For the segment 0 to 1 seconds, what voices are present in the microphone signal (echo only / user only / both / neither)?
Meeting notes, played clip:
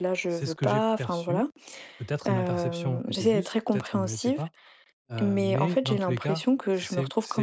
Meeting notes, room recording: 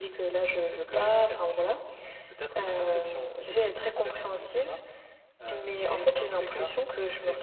echo only